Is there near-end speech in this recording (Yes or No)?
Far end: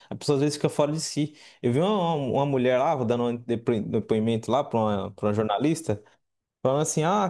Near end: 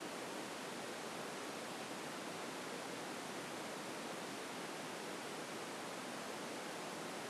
No